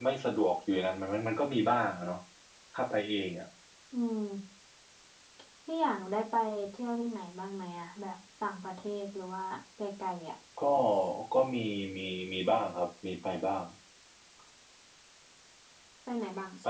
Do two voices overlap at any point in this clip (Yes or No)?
No